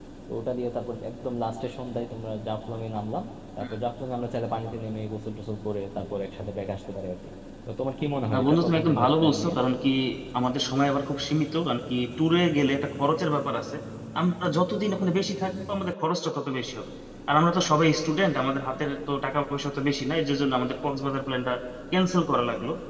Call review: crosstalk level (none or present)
present